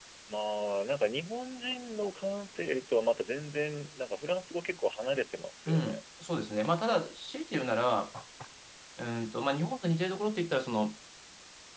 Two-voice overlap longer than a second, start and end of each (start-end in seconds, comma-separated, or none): none